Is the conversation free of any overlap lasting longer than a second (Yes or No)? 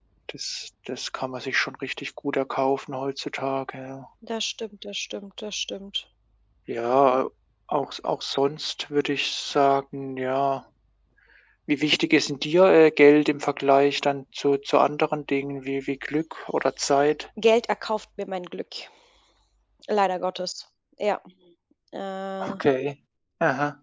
Yes